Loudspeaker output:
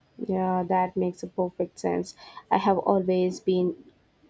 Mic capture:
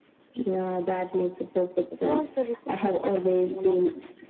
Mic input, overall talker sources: both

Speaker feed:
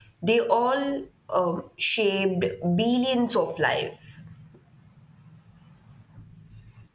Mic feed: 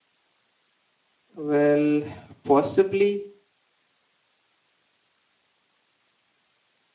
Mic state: user only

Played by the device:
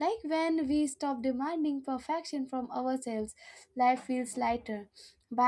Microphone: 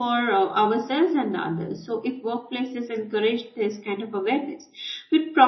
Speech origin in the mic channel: user only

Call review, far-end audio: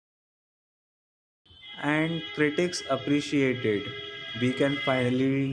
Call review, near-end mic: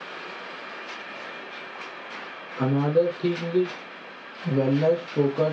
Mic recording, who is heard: user only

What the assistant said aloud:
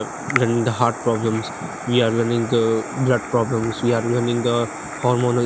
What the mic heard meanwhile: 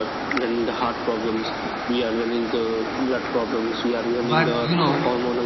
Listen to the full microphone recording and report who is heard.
both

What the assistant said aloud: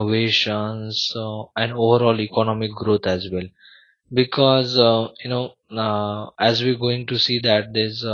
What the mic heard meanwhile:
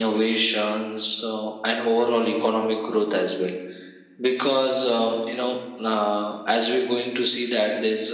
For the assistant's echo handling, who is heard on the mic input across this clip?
echo only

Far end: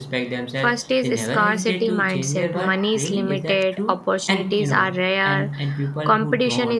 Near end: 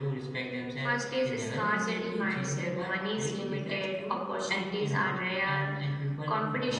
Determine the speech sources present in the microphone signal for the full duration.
echo only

